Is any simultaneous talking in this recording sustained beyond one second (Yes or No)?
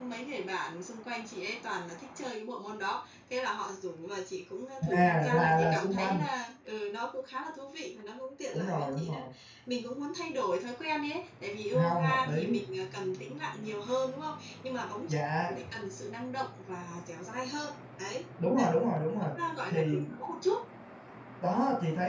Yes